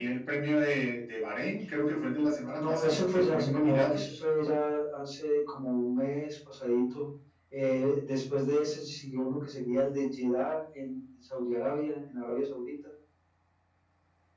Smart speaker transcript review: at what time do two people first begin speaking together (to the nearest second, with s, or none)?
3 s